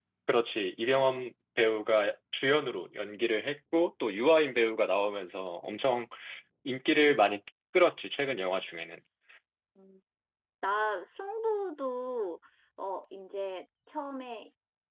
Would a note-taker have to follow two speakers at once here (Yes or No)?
No